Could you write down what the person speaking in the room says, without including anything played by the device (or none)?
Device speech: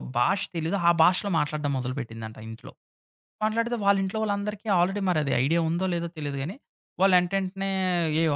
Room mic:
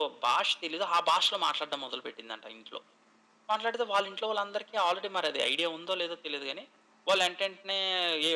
none